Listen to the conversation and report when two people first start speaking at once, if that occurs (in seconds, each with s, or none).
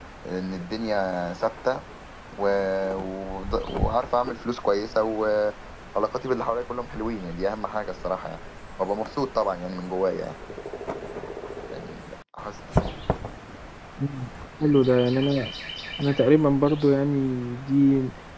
none